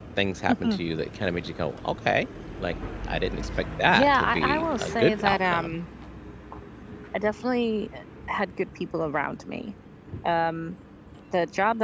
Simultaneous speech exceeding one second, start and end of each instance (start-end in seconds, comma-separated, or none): 3.9-5.8